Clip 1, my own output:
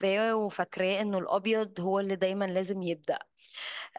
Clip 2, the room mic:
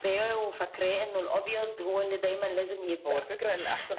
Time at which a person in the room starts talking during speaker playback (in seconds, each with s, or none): 3.0 s